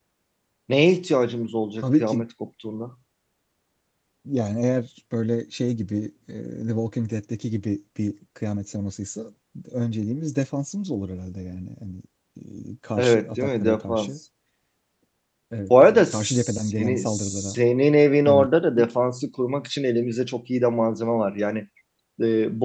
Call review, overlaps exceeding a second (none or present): present